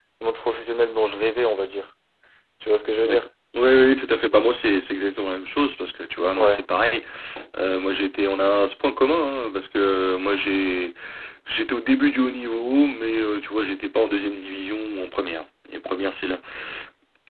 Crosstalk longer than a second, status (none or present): none